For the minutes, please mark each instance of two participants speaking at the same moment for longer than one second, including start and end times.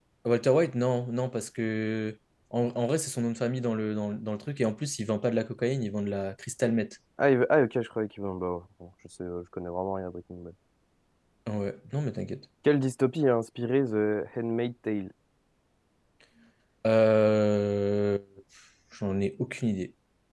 none

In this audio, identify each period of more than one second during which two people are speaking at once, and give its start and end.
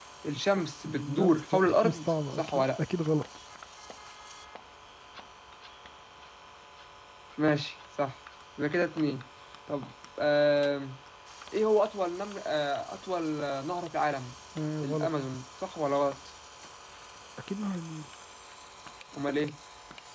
0.9-2.6

